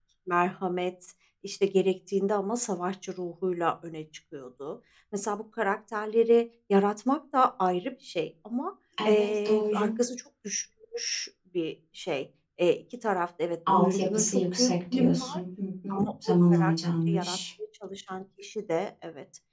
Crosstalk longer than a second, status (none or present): present